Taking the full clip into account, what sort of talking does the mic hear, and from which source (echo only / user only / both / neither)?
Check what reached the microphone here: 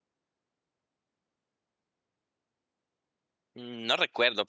user only